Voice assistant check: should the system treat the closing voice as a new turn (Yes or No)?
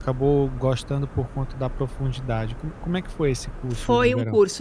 Yes